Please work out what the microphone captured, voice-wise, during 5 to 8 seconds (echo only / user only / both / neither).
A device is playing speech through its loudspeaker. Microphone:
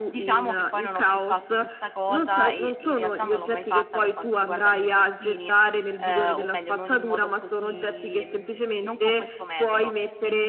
both